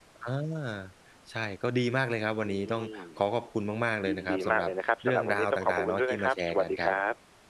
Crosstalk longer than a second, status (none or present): present